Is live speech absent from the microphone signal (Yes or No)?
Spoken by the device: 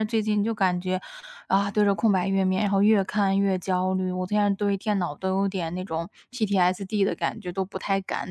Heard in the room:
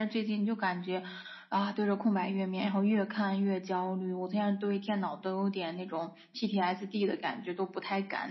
Yes